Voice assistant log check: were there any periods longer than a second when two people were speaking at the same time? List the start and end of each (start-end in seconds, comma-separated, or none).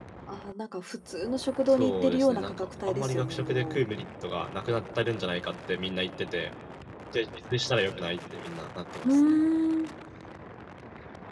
1.7-3.8